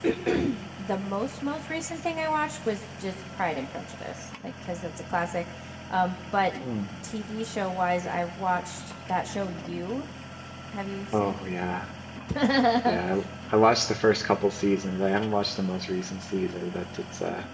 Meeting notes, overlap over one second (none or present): none